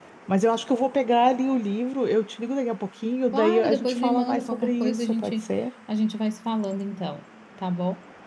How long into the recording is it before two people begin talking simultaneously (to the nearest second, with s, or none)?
3 s